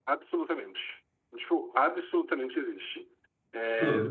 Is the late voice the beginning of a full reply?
No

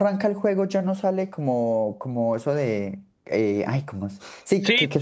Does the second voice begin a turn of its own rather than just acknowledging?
No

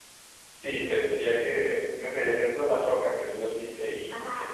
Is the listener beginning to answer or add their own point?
Yes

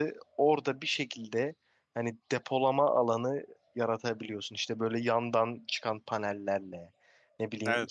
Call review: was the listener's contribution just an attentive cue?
Yes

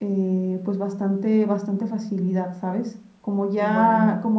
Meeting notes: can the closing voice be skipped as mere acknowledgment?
Yes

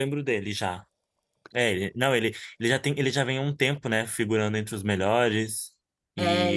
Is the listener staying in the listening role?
No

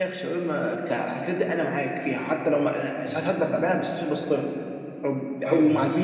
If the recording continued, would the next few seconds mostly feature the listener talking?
No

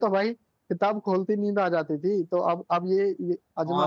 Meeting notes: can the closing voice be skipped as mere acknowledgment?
No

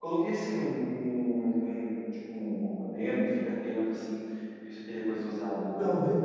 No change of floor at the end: No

